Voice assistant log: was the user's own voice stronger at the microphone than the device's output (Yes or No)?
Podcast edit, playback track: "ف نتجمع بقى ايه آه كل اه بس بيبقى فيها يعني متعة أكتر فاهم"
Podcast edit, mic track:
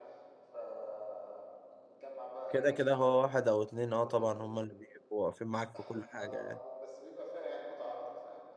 Yes